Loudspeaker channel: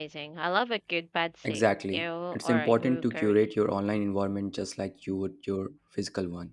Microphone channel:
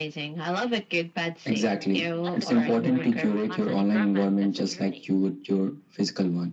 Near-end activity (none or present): present